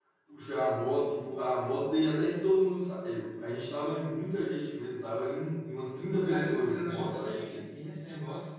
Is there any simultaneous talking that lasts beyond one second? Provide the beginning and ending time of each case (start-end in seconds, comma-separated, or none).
6.2-7.6